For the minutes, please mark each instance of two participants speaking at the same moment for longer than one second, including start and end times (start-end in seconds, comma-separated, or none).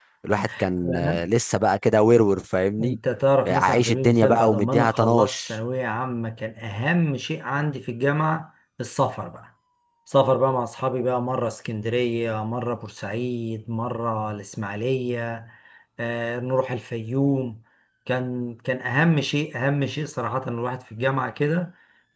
3.5-5.6